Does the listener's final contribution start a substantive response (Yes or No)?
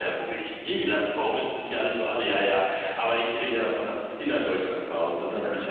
No